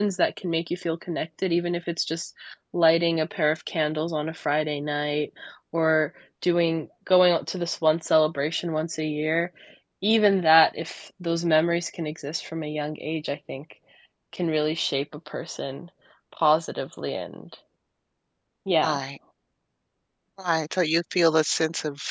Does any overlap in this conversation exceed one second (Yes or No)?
No